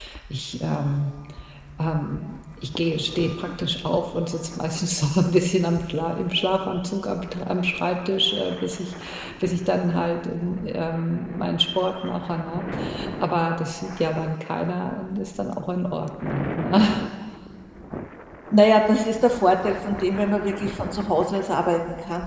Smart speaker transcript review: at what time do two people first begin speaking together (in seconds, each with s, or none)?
none